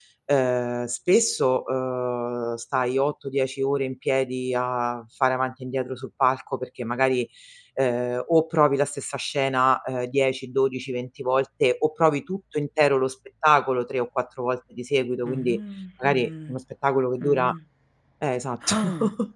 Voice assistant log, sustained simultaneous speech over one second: none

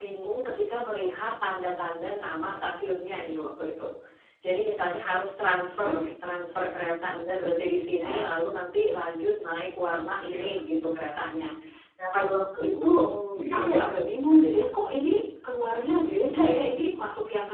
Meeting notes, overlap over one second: none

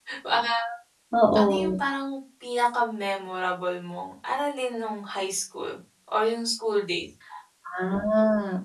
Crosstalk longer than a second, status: none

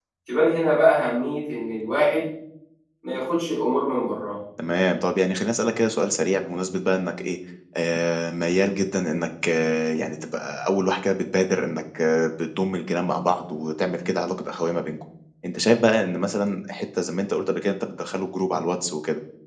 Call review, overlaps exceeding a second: none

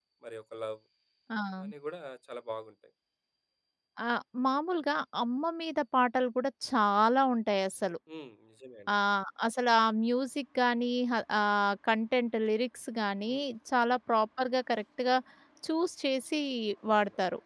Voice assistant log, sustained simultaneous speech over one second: none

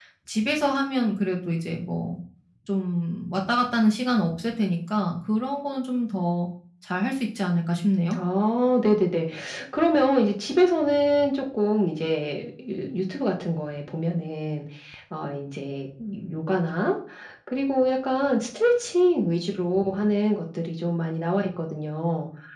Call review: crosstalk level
none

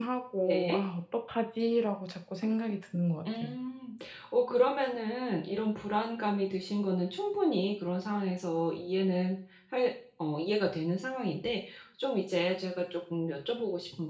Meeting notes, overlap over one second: none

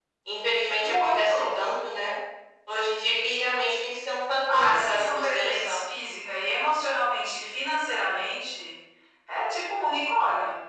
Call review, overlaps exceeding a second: present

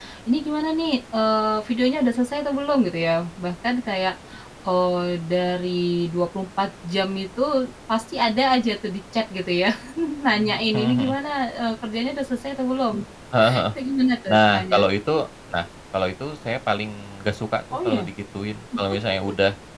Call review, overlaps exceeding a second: none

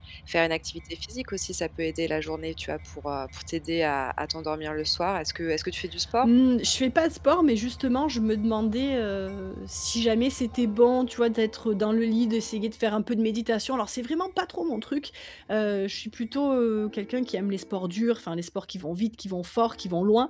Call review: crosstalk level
none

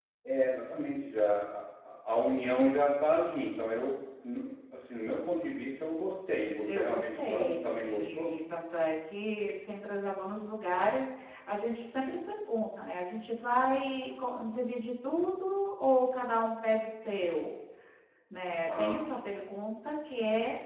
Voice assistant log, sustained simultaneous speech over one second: present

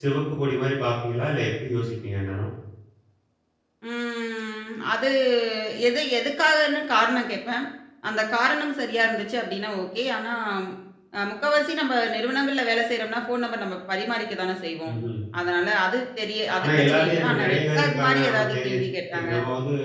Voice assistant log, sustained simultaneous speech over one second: present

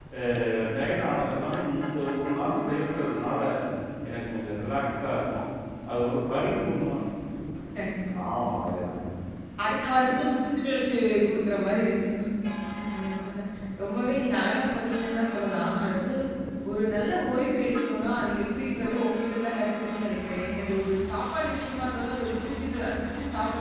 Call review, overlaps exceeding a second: none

